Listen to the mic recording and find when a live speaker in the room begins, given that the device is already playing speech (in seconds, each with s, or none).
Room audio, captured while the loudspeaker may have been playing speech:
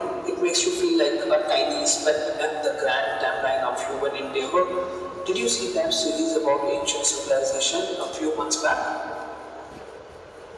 none